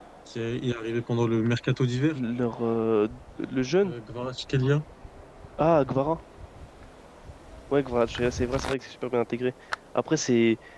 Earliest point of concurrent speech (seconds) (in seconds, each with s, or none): none